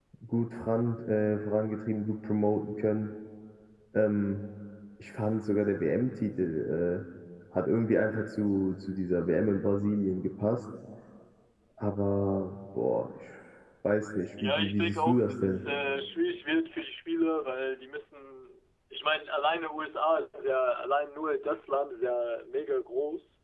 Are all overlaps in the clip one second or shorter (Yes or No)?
No